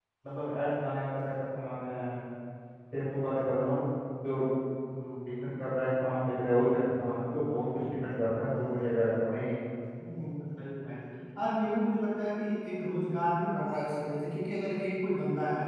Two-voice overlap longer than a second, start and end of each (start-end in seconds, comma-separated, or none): none